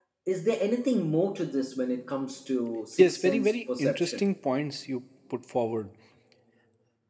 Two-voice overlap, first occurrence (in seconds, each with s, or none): 3.0 s